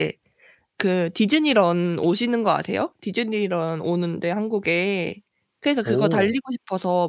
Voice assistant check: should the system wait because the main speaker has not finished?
Yes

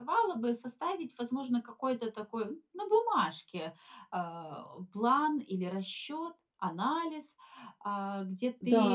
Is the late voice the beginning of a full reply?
Yes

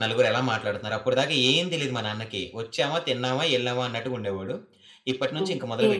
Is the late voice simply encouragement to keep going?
Yes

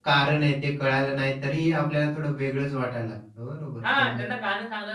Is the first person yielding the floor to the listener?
Yes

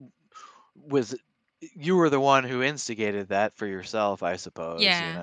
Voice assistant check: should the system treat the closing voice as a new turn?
Yes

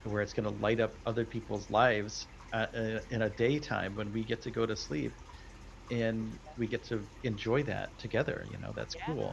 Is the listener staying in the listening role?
No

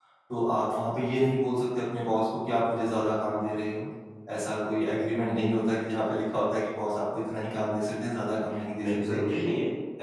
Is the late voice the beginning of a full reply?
Yes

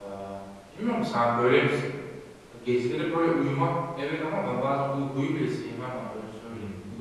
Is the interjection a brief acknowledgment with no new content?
No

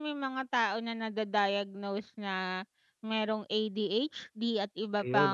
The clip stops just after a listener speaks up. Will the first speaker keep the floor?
Yes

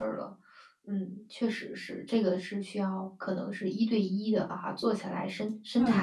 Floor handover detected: Yes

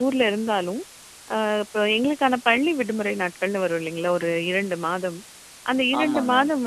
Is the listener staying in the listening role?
Yes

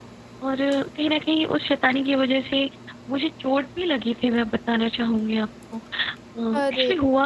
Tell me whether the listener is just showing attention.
Yes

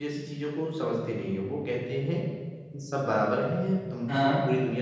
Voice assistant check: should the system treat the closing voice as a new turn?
No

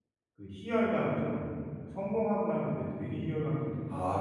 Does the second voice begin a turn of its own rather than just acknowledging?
Yes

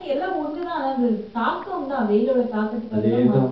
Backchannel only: No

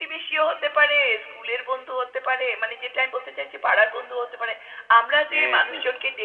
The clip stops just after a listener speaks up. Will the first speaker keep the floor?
Yes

